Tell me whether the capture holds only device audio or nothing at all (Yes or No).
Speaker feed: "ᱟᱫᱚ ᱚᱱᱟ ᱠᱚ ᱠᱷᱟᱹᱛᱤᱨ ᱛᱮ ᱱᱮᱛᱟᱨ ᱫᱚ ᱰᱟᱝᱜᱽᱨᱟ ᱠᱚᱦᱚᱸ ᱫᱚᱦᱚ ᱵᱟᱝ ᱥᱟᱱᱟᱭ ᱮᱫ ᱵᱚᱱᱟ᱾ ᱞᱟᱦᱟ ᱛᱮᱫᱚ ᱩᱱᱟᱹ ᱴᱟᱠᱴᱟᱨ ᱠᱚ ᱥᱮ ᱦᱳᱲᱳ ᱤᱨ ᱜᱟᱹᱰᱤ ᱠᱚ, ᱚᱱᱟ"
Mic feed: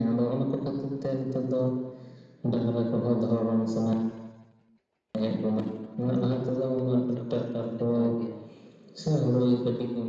No